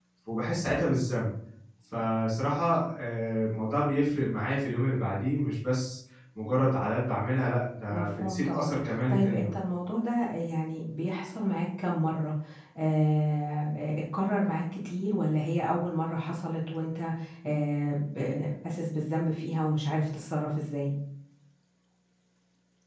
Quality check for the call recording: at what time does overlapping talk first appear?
7.9 s

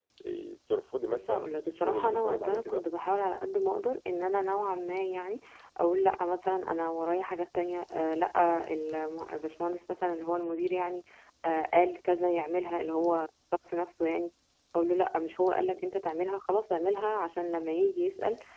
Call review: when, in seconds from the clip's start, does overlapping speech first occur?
1.0 s

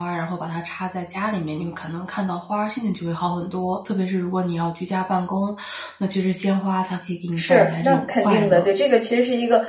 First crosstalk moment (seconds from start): 7.4 s

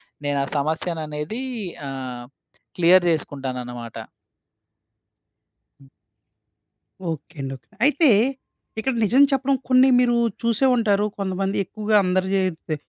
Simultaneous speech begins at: none

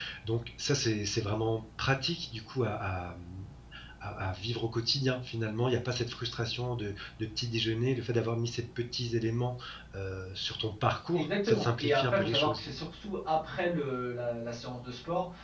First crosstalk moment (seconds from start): 11.1 s

